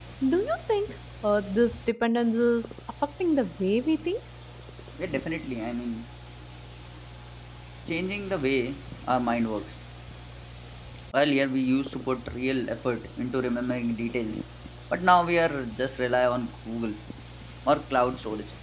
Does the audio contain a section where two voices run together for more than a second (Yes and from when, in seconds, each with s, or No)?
No